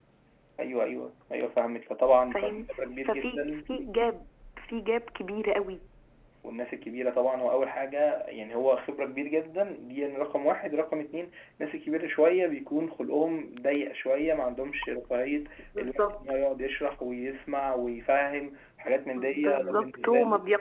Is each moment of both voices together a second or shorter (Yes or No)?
No